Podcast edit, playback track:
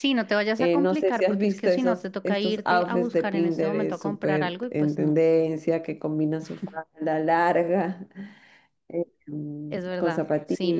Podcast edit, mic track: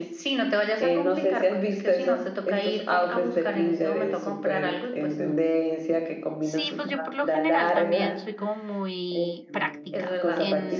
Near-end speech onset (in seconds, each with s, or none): 6.4 s